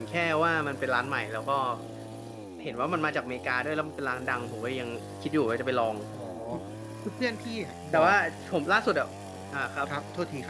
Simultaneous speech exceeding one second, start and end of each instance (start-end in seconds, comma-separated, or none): none